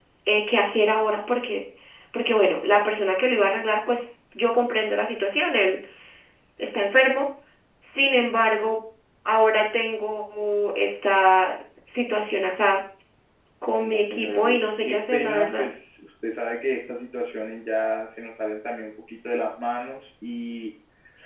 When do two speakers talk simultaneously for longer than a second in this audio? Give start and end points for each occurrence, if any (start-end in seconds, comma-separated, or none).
13.8-15.7